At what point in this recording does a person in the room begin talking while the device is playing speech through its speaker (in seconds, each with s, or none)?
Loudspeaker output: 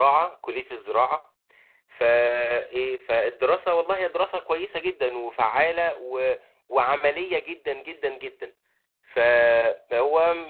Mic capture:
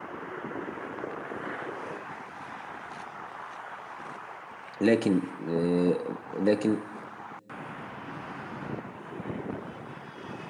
4.8 s